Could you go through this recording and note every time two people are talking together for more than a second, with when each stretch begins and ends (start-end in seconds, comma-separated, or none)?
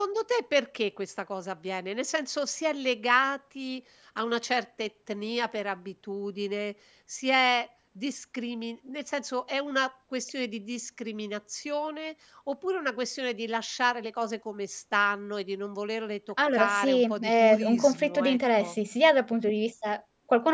16.5-18.8